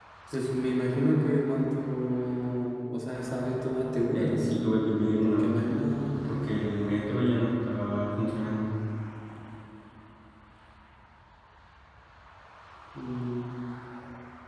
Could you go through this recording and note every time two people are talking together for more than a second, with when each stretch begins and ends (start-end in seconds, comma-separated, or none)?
none